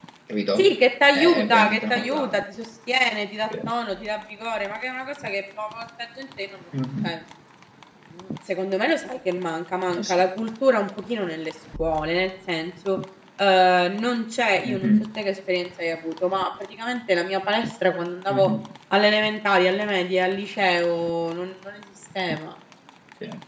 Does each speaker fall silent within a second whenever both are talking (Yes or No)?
No